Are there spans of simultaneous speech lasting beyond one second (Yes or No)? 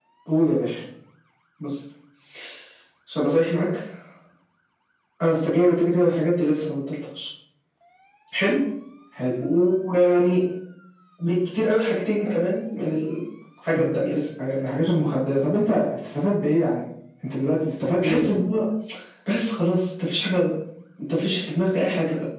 No